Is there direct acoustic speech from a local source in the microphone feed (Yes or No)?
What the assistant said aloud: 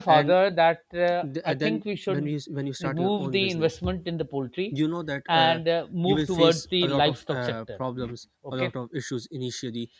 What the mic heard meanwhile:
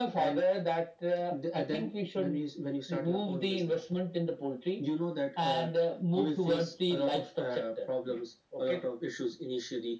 No